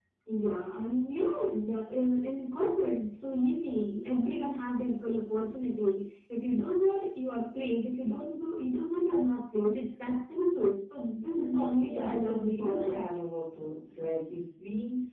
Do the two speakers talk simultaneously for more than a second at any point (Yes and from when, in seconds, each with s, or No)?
Yes, from 11.3 s